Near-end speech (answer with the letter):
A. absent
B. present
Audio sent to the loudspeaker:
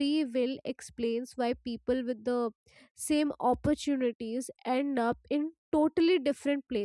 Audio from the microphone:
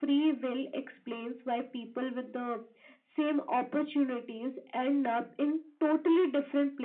A